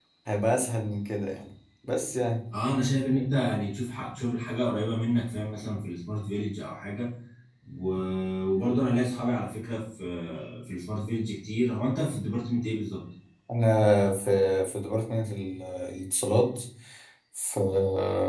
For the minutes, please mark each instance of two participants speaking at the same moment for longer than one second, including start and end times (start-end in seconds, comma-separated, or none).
none